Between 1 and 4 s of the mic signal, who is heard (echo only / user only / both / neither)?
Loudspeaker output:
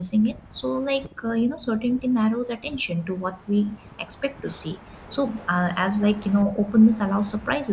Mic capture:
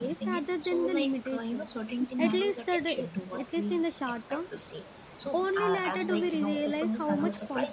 both